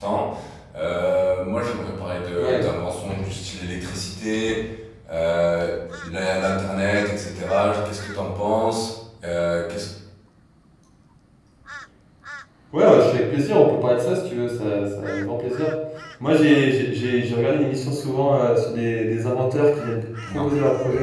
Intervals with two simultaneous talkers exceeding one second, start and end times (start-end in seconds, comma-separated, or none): none